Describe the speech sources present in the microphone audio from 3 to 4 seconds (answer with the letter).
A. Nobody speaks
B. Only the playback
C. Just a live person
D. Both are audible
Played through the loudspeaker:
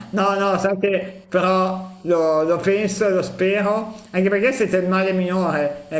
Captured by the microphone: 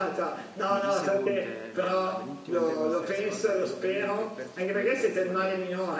D